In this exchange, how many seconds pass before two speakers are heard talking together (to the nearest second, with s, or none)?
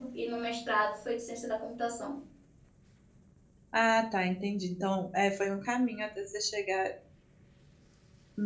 none